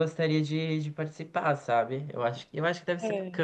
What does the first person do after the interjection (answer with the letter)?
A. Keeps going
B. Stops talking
A